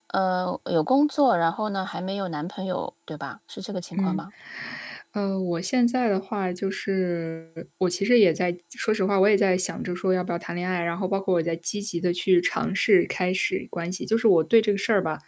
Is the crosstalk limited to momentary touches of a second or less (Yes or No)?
Yes